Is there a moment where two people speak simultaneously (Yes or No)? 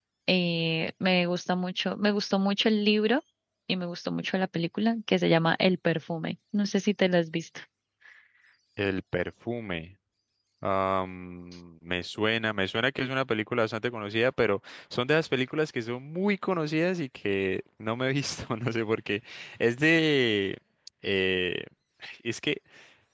No